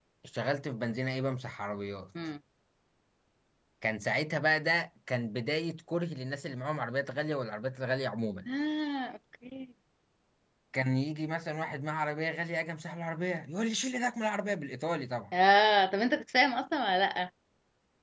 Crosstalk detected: No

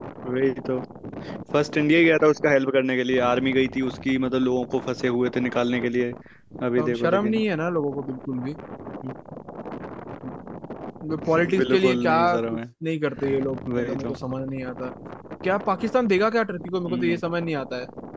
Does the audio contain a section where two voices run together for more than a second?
Yes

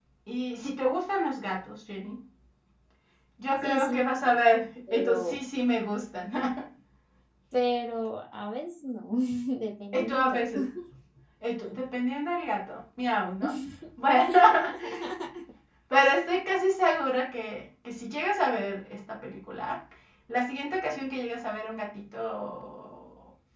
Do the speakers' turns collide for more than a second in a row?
Yes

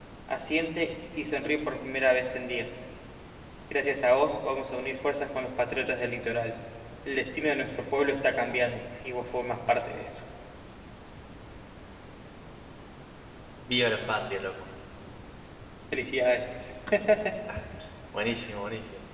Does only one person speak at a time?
Yes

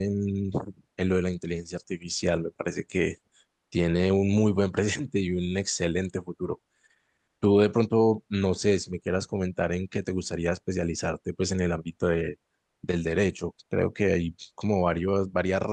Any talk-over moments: No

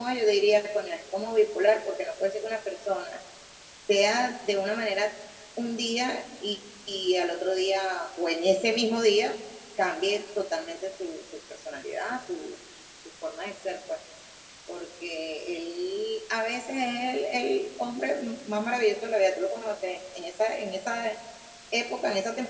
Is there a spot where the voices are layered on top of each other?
No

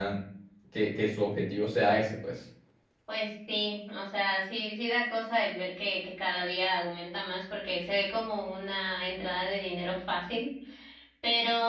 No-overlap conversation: Yes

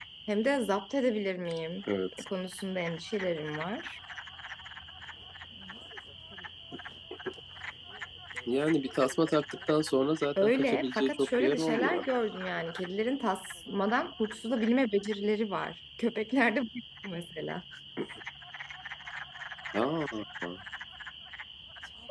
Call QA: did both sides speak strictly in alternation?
No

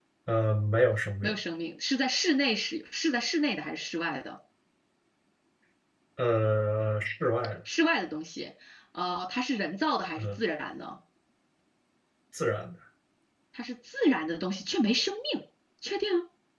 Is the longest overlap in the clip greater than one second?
No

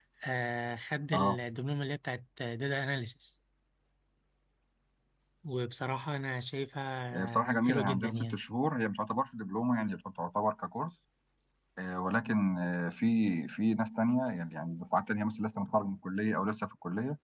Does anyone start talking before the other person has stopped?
Yes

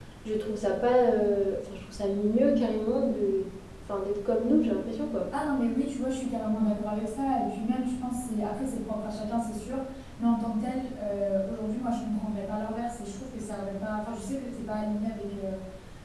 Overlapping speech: No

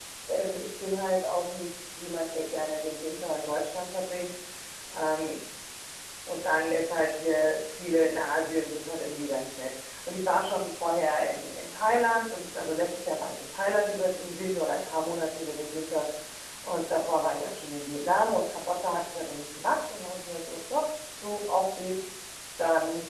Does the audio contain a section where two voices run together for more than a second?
No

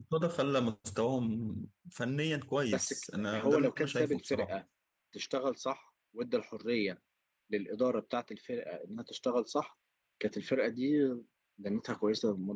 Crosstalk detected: Yes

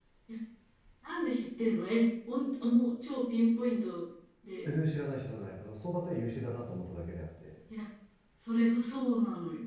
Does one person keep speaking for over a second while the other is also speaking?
No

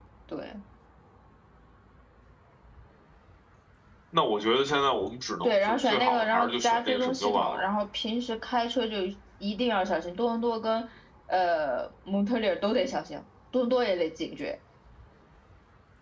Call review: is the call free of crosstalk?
No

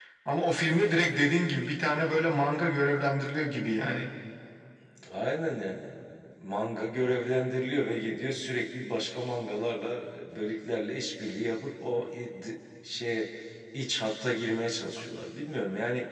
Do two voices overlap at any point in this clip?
No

